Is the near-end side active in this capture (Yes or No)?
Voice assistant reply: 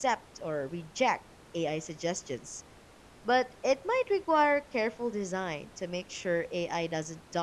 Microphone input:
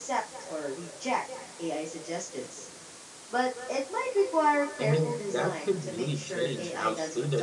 Yes